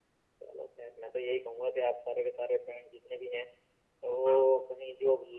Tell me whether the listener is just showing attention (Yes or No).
Yes